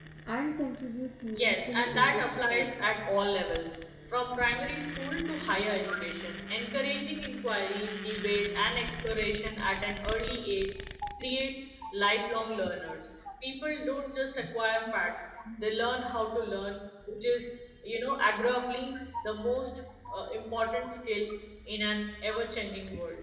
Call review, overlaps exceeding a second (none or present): present